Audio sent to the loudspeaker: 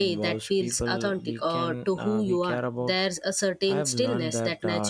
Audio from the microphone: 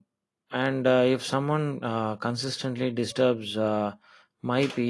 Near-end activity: present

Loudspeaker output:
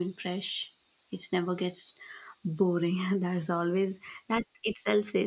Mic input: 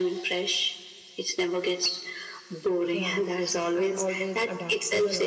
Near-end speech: present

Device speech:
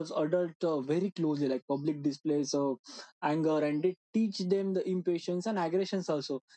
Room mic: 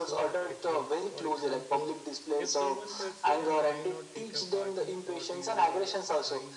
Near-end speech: present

